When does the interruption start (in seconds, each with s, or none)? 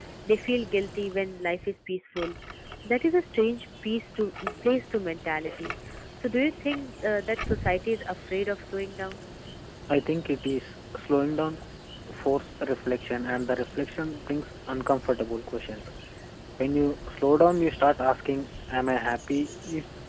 none